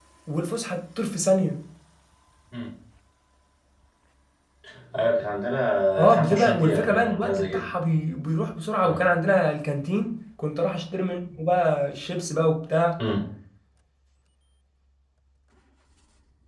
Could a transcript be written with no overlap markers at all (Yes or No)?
No